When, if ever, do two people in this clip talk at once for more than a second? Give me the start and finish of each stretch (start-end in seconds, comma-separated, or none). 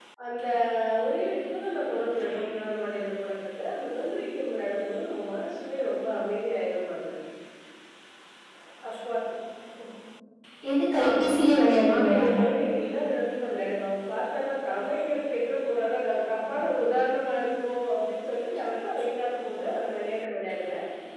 none